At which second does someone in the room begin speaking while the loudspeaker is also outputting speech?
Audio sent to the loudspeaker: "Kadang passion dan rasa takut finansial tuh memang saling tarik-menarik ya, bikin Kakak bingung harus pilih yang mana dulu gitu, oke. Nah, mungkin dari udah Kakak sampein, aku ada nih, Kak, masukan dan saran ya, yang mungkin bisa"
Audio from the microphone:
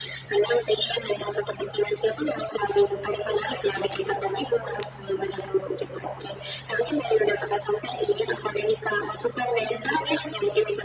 none

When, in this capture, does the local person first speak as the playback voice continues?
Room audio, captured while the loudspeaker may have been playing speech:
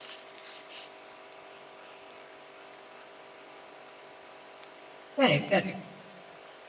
5.2 s

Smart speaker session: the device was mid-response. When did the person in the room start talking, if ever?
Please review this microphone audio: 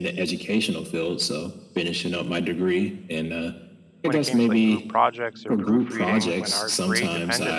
4.0 s

